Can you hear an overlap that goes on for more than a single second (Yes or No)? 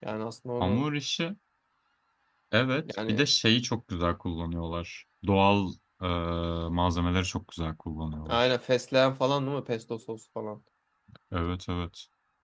No